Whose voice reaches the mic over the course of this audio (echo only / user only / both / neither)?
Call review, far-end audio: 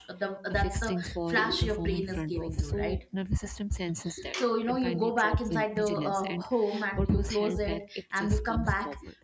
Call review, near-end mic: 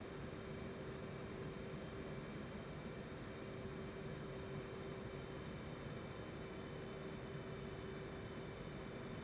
neither